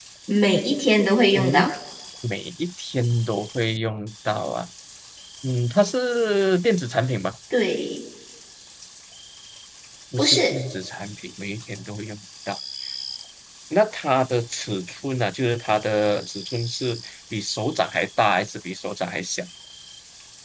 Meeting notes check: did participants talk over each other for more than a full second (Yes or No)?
No